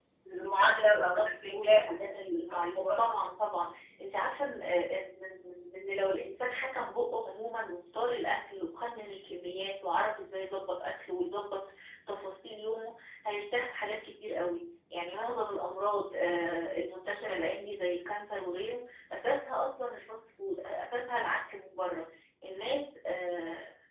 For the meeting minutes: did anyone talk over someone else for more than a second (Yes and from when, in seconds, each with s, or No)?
Yes, from 0.6 s